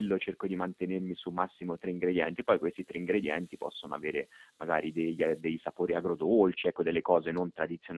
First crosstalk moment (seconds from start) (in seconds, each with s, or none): none